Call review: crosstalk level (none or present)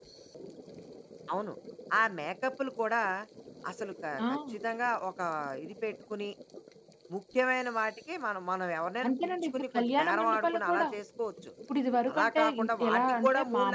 present